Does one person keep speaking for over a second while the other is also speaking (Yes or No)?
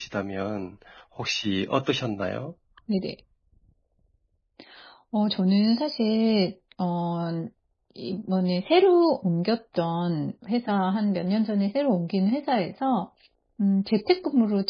No